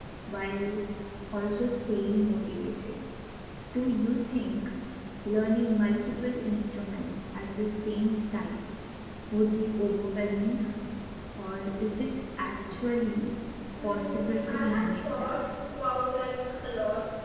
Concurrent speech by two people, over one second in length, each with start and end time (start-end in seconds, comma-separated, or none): 13.8-15.3